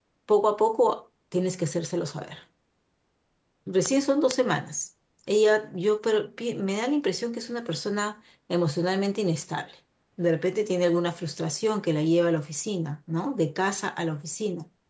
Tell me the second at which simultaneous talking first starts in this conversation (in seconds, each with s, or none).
none